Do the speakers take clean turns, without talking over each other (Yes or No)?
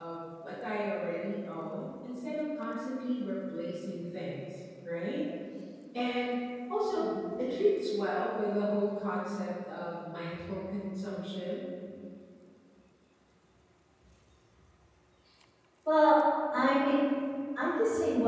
Yes